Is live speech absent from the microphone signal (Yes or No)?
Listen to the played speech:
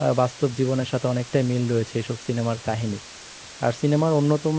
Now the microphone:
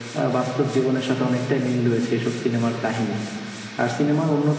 Yes